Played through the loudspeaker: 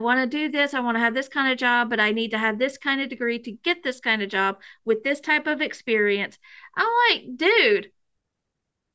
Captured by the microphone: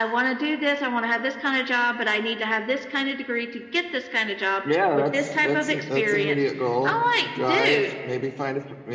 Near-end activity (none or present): present